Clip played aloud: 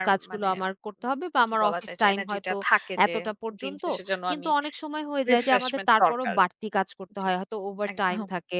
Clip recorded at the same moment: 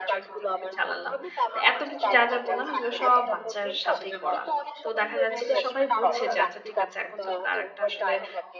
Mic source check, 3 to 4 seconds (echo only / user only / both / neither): both